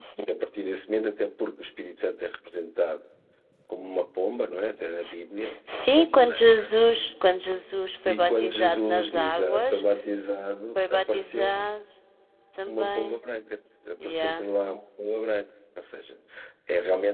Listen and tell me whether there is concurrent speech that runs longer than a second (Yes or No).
Yes